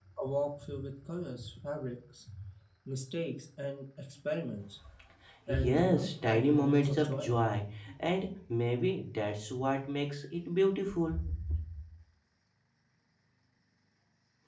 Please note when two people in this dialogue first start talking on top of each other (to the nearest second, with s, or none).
5 s